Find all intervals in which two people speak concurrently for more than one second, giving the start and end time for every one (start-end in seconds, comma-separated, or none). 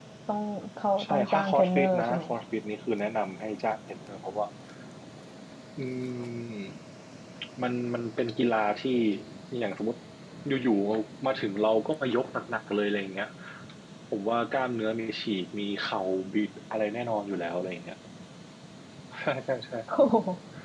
1.0-2.2